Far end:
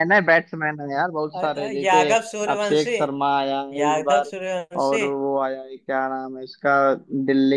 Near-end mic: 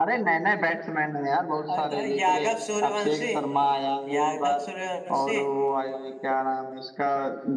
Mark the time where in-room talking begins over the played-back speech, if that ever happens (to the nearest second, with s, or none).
none